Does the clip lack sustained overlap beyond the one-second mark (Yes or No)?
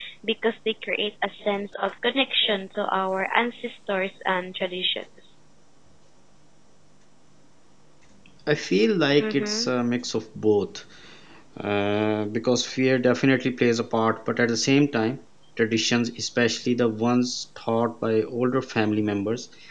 Yes